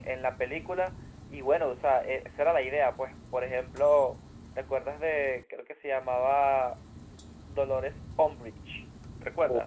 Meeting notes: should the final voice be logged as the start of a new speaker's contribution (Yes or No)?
Yes